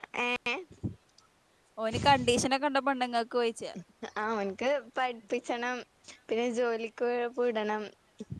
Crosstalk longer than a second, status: none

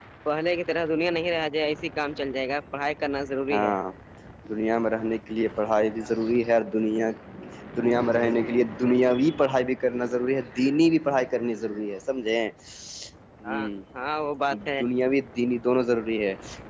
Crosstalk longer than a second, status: none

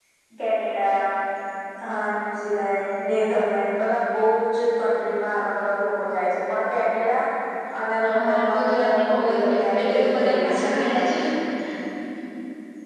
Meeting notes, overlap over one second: present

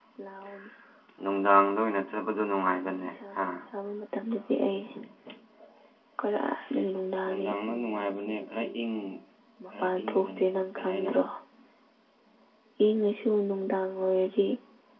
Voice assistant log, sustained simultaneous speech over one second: present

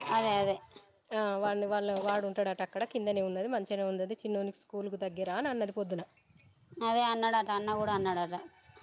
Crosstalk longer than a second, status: none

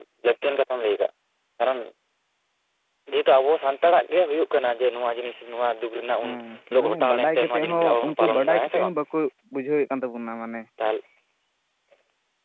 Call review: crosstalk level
present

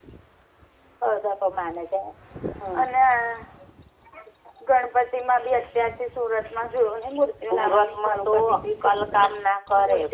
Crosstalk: present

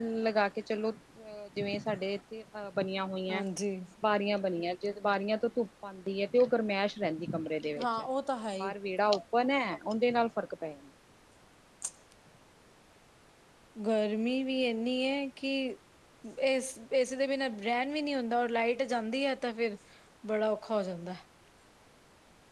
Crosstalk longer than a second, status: none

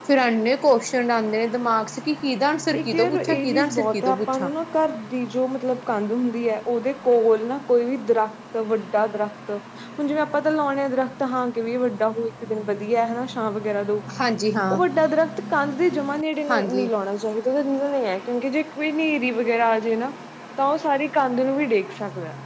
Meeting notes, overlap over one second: present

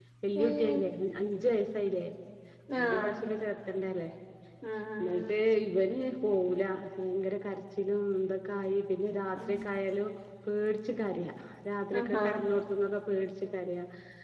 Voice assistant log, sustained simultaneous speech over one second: none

